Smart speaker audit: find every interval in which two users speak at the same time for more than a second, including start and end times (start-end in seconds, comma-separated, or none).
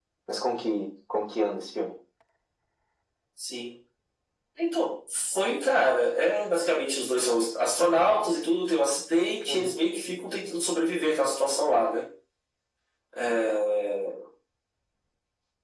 none